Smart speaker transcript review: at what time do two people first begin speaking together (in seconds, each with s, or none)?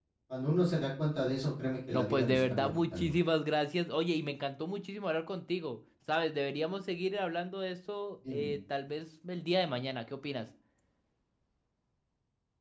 1.9 s